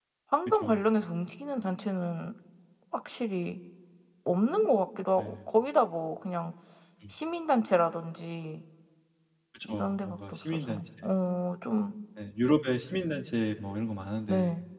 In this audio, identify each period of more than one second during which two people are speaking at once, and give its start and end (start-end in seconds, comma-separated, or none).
9.6-10.9